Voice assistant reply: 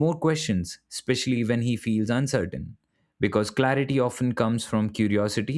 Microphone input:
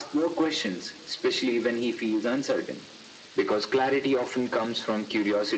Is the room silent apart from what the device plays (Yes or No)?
Yes